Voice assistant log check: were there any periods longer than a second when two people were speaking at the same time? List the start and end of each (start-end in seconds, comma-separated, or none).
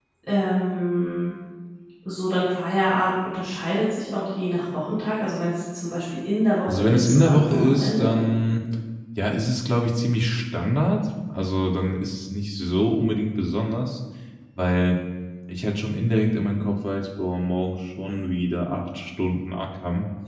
6.7-8.1